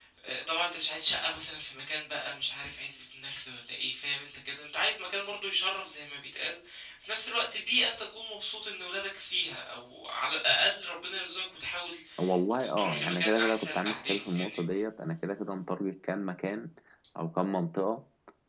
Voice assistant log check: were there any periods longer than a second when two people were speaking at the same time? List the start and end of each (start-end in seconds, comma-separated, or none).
12.6-14.6